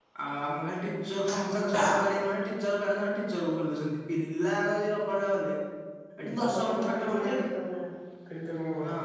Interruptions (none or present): present